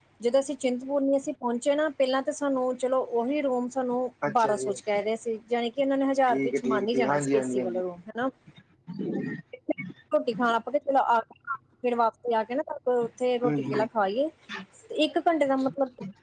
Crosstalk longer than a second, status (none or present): present